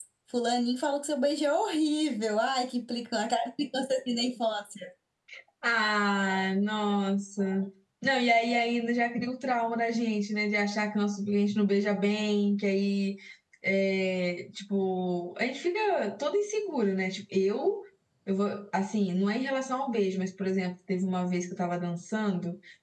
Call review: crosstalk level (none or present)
none